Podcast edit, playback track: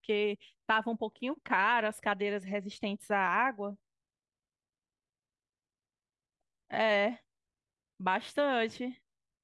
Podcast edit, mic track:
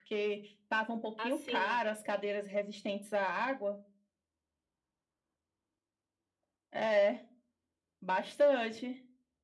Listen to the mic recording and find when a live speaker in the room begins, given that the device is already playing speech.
1.2 s

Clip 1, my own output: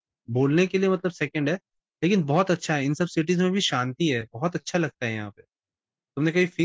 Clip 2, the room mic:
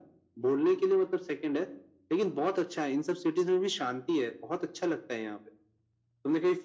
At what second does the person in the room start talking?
none

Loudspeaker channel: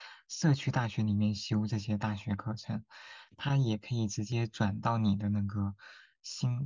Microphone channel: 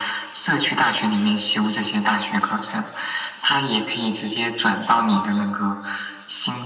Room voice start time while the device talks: none

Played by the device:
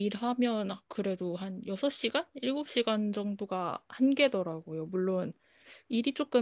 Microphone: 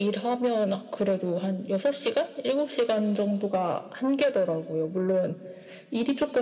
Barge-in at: none

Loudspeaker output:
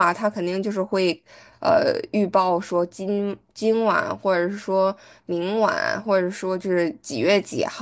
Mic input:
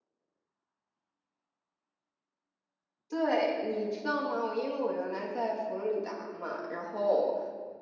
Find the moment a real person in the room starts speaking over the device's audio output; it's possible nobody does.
3.1 s

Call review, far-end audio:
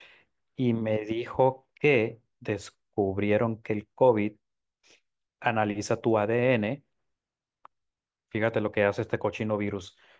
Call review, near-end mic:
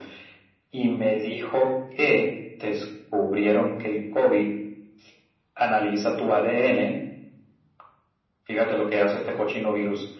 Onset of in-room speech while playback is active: none

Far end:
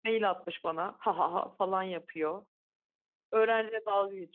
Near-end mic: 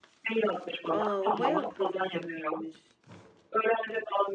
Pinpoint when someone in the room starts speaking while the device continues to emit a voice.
0.9 s

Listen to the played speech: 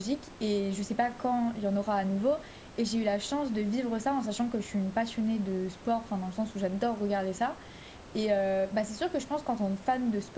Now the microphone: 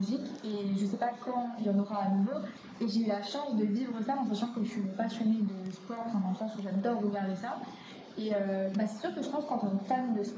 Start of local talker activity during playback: none

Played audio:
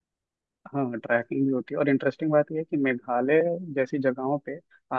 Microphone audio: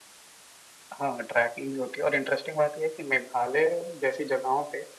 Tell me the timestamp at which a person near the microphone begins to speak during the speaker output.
none

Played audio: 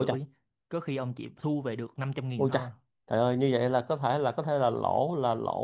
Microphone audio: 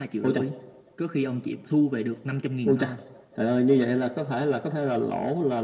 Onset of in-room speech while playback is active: none

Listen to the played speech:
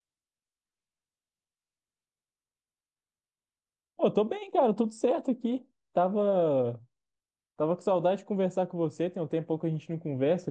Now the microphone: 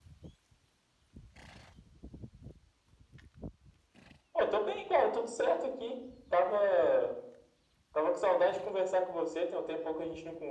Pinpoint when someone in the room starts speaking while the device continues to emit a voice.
none

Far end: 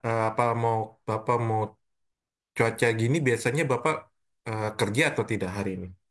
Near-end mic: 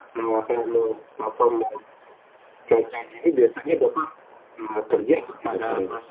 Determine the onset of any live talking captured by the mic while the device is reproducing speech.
5.2 s

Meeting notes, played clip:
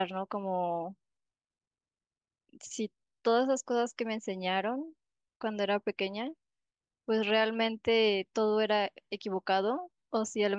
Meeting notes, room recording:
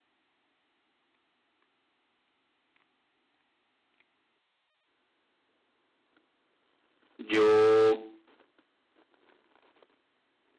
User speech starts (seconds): 7.2 s

